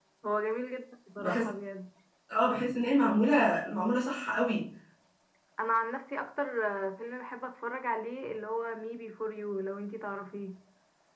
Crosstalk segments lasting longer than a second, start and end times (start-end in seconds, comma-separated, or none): none